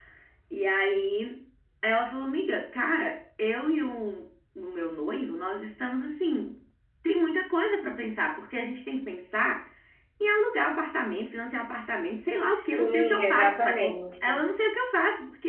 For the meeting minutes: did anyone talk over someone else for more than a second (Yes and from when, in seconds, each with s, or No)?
Yes, from 12.5 s